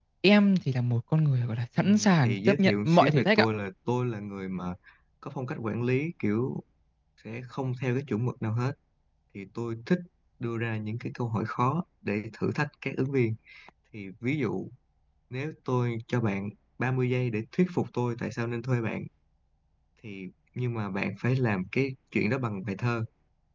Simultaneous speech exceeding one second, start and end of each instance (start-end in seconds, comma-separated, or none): 1.8-3.5